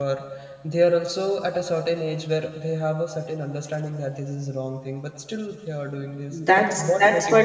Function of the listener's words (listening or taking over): taking over